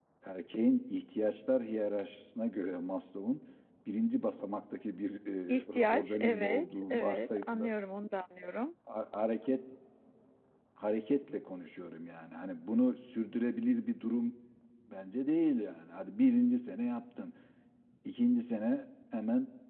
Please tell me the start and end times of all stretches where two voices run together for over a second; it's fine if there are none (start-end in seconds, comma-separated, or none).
5.5-7.7